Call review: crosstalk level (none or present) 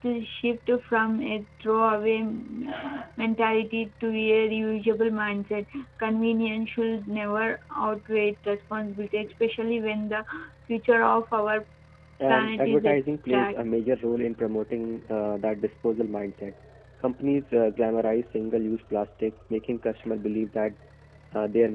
present